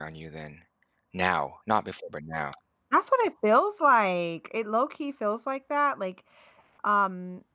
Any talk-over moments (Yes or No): No